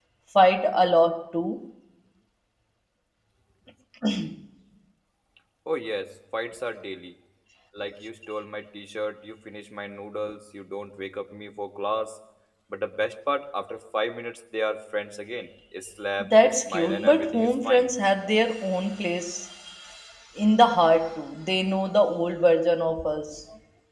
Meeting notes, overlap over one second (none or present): present